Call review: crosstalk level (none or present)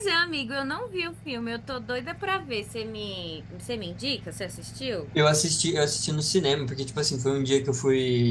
none